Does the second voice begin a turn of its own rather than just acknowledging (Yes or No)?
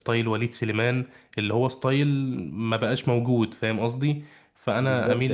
Yes